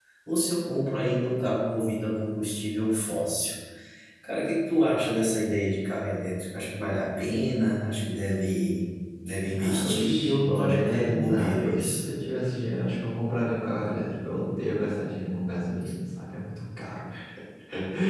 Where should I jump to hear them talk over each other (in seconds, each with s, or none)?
9.4 s